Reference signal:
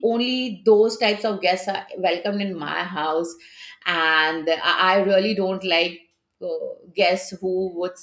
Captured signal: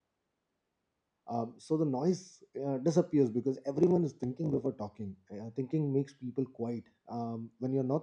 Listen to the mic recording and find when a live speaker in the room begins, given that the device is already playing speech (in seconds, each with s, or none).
1.3 s